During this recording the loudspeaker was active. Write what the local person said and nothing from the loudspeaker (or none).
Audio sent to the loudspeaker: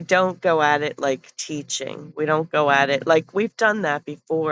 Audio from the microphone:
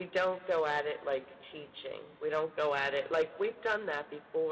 none